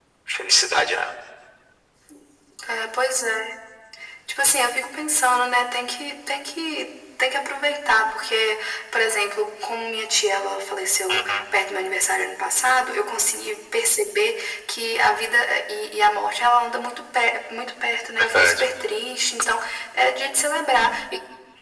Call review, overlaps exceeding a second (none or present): none